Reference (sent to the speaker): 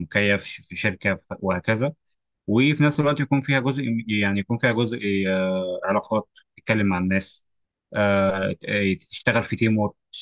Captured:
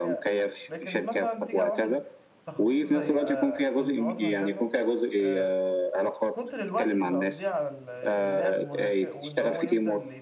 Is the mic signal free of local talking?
No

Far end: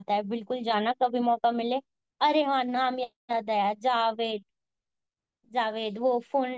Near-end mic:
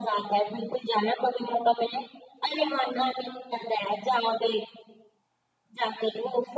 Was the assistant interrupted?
No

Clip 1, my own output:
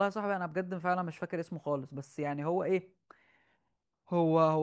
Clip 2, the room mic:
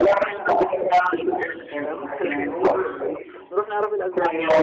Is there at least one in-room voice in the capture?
Yes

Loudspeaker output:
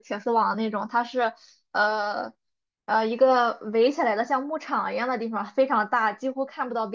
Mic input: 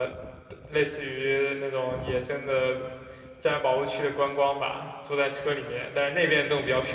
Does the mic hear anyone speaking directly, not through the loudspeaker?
Yes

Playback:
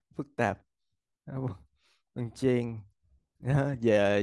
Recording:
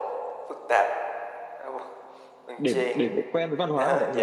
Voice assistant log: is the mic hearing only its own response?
No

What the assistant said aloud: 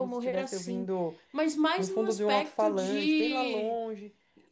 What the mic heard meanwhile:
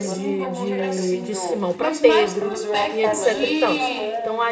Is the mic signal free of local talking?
No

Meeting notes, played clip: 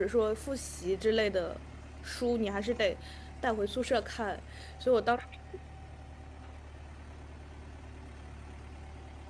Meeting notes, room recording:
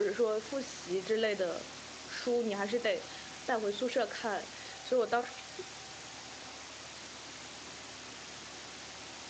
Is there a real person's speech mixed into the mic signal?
No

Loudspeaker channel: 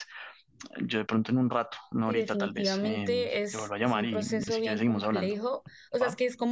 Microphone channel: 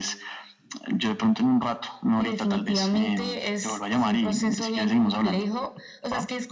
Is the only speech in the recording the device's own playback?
Yes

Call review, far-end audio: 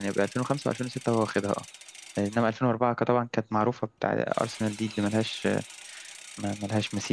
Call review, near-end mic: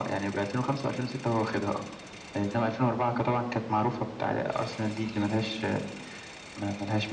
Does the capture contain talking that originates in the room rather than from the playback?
No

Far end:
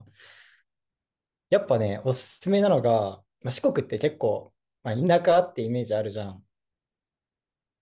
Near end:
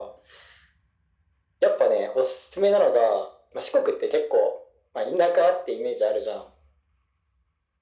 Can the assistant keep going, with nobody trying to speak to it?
Yes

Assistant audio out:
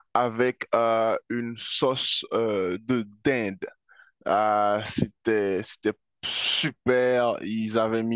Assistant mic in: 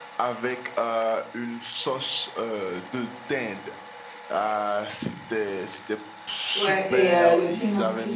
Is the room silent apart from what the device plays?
No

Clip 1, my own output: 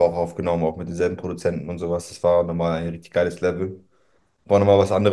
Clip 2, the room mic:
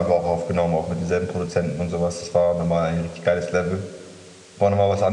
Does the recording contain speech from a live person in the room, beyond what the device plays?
No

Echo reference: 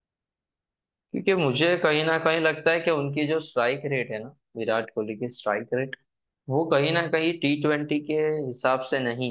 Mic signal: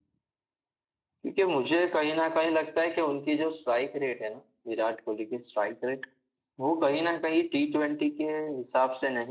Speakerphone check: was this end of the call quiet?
Yes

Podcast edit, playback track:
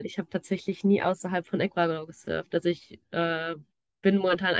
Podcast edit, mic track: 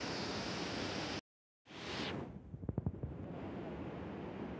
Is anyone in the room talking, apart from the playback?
No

